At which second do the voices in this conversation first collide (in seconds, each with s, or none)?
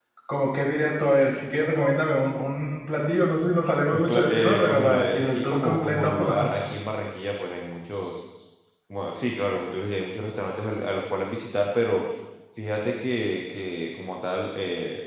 3.9 s